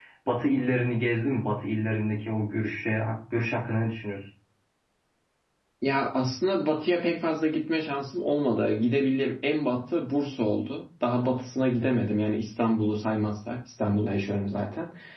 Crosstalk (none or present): none